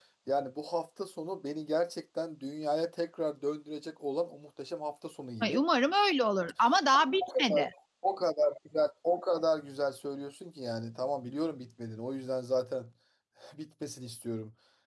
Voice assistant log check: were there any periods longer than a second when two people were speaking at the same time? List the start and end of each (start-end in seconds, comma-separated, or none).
none